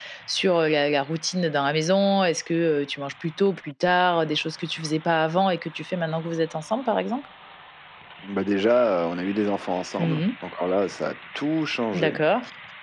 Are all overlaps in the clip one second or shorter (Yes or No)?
Yes